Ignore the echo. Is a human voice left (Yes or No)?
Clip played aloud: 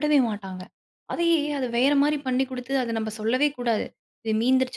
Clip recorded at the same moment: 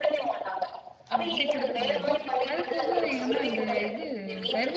Yes